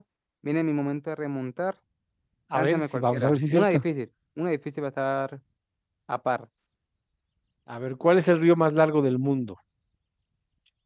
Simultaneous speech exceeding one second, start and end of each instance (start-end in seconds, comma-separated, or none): 2.5-3.8